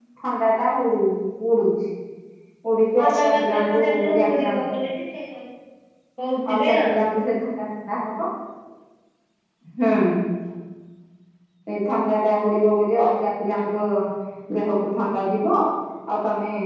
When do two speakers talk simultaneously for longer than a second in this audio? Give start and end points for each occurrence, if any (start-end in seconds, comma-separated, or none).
3.0-4.6